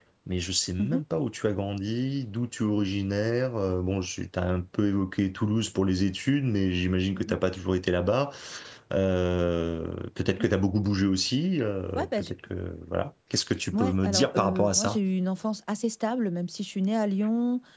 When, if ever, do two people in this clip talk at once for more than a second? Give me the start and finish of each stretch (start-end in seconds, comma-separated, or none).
13.7-15.0